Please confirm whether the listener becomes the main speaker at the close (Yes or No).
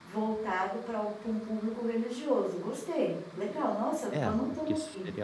Yes